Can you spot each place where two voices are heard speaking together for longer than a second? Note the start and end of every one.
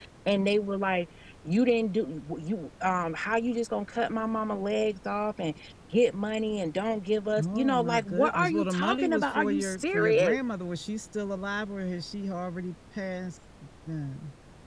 7.4-10.4

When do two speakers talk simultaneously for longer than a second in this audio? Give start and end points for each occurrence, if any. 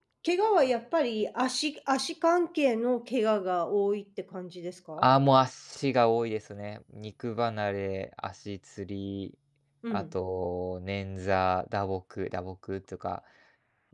none

